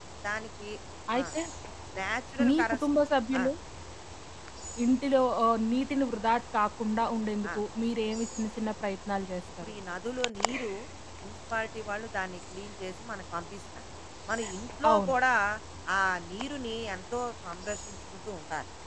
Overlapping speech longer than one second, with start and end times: none

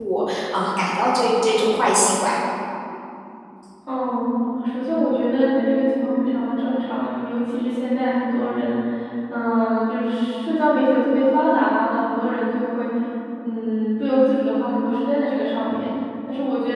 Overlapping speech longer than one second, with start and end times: none

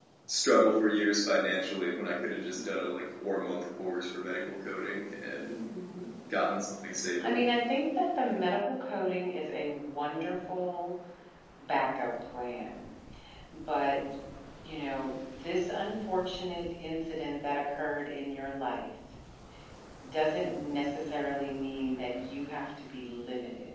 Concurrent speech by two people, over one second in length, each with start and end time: none

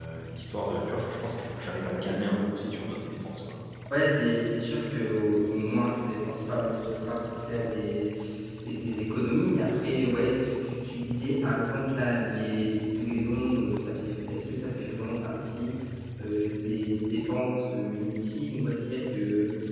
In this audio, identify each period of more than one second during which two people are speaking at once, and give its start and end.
none

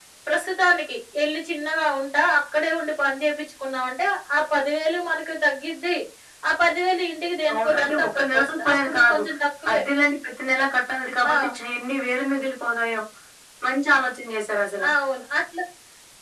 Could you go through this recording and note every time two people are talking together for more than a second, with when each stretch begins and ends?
7.5-9.2

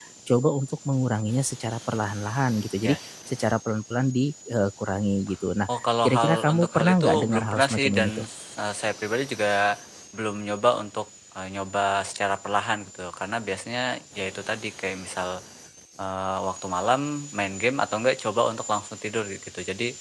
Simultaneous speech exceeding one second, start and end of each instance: 5.7-8.2

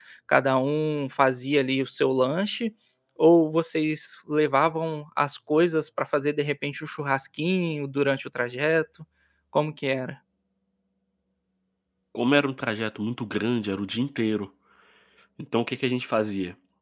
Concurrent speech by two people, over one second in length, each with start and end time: none

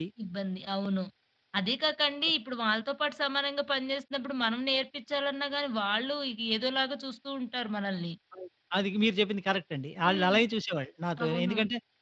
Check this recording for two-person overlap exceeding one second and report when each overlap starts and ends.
none

